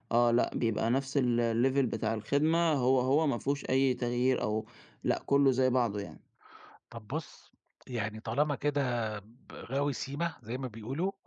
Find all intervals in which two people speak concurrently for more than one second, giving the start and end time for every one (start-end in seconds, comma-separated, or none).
none